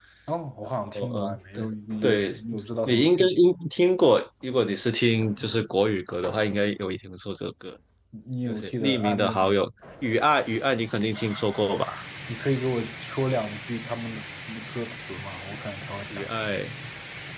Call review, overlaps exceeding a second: present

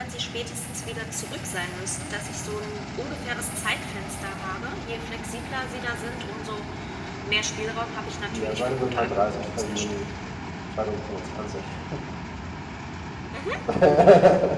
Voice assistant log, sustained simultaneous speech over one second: present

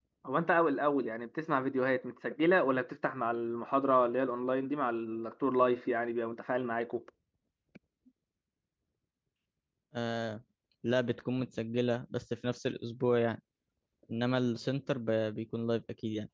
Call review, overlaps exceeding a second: none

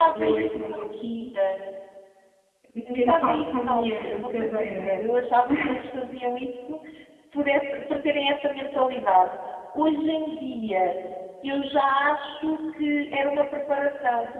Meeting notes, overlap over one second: present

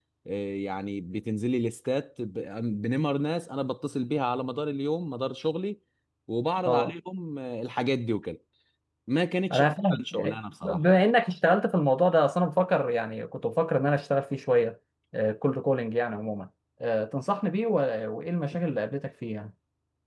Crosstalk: present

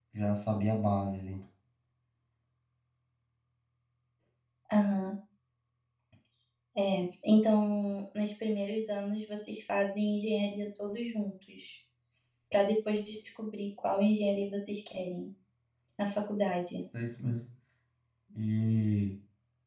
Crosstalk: none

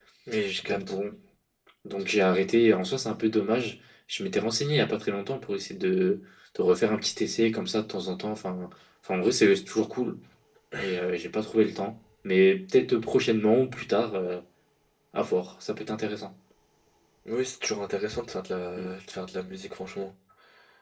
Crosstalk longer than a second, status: none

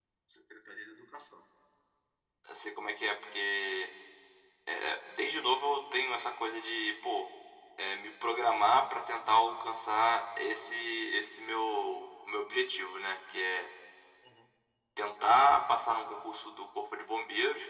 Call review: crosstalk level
none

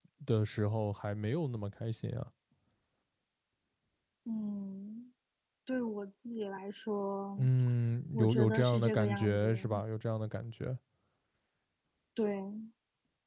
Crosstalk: present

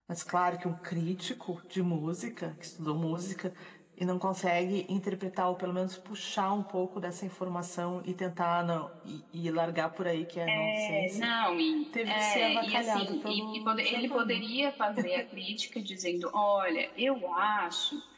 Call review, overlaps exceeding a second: present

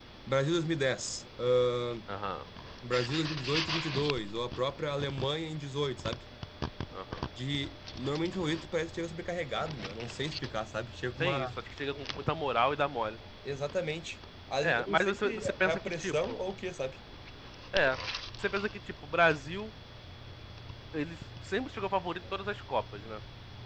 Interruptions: present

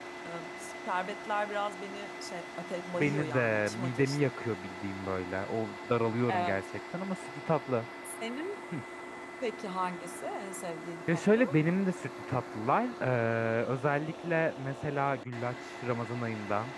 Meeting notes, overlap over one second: present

